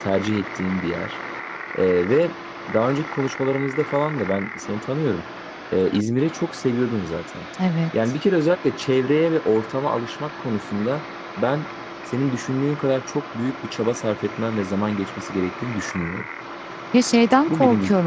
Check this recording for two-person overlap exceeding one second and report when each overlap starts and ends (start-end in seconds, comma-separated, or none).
none